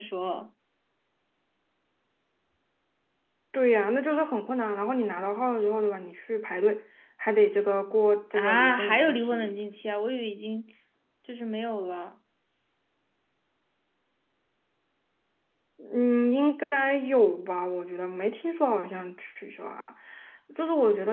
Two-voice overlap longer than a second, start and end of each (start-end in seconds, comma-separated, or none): 8.3-9.5